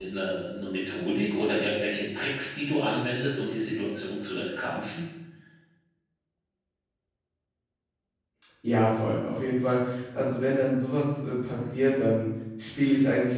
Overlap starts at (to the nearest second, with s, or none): none